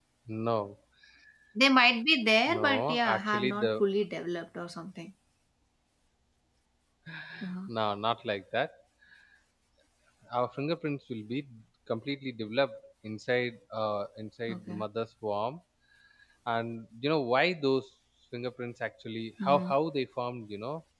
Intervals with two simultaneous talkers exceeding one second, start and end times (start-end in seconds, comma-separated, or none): 2.5-3.8